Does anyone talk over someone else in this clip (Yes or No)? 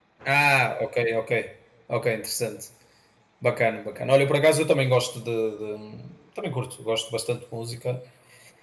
No